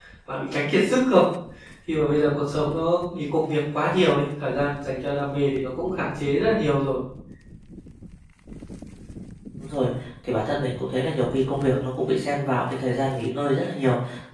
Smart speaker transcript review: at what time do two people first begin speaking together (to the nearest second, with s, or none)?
none